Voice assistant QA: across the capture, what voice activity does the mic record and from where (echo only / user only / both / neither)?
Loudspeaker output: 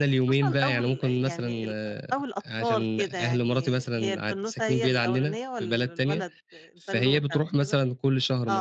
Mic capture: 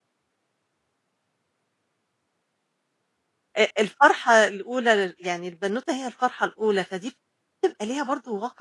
user only